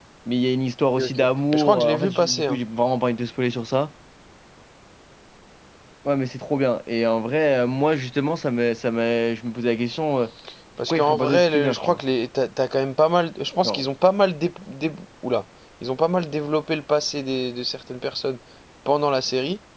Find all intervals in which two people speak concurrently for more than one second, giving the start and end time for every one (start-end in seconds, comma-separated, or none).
1.0-2.6, 10.8-12.0